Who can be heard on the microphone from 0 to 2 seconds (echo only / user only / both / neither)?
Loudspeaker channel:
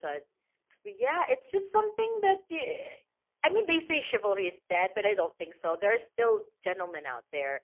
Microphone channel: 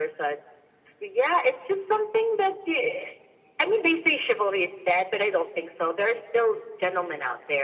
echo only